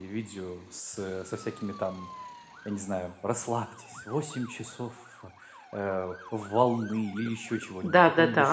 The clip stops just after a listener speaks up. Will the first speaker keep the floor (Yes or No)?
No